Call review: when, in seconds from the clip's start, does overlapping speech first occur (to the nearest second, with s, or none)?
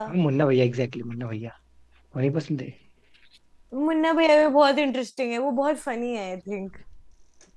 none